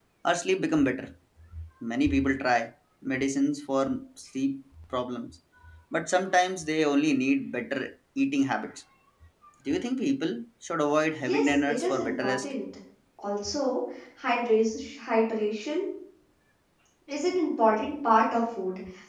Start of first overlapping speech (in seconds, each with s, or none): 11.2 s